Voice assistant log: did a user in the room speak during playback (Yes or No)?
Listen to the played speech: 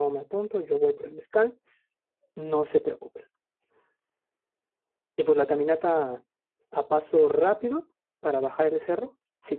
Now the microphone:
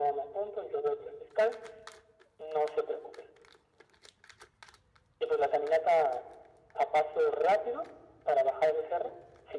No